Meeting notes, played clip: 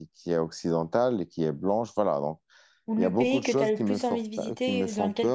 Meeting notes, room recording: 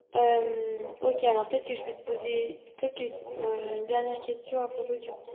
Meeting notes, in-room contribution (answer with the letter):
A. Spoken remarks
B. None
A